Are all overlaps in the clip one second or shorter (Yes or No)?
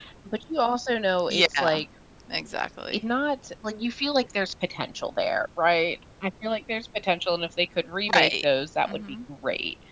Yes